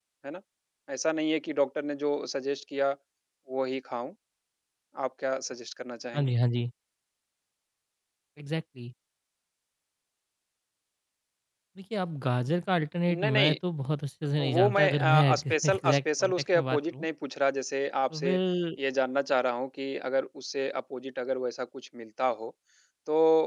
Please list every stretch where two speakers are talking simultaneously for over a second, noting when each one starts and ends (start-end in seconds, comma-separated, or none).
14.5-17.1